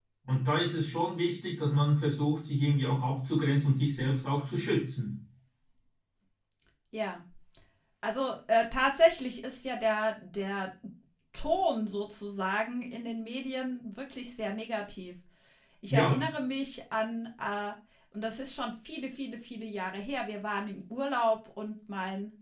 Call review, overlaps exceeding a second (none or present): none